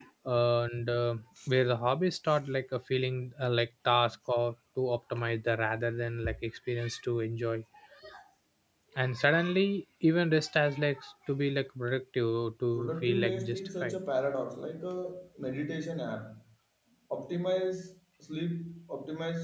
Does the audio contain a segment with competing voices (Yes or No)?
Yes